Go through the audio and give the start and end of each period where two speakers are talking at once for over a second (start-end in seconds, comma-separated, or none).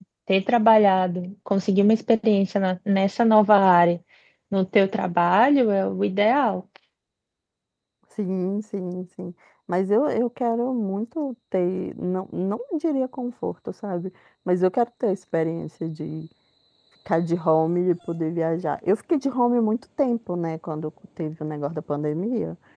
none